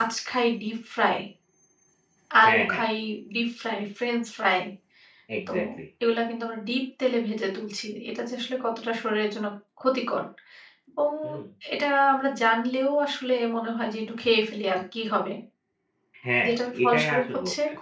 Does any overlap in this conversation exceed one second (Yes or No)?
Yes